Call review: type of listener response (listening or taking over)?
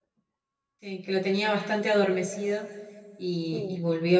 listening